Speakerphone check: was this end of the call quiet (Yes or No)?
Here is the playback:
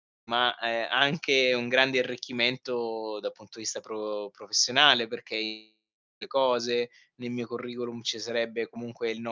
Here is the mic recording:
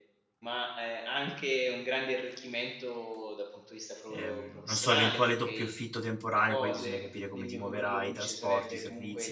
No